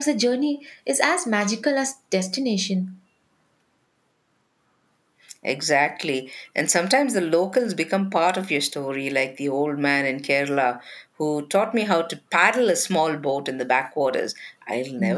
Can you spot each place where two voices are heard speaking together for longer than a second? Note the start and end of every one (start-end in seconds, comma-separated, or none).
none